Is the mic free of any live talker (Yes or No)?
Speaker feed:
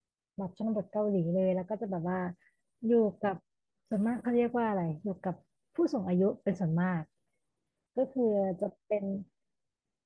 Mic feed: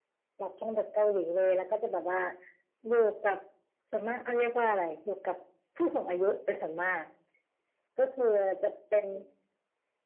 Yes